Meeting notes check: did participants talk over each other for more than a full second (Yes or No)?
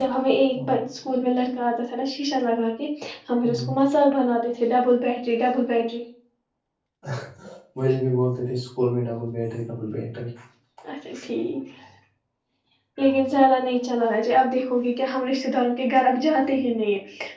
No